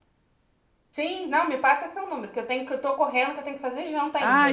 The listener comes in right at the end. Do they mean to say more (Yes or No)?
Yes